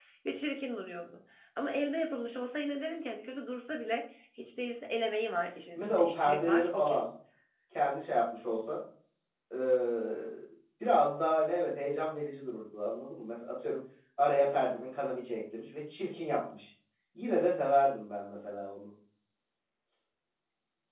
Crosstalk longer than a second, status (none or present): present